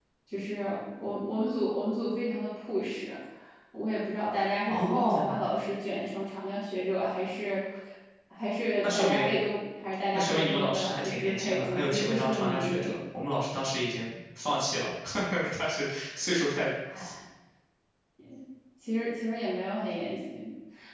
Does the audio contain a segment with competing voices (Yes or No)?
Yes